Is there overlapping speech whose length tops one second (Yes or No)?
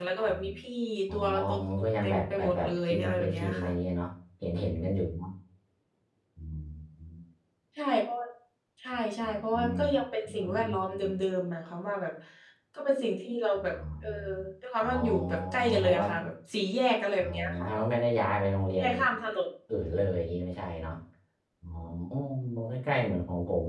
Yes